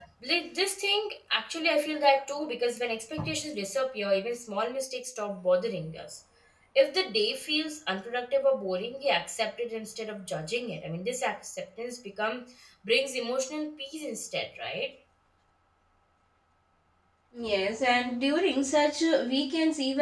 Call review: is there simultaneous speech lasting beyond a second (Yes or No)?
No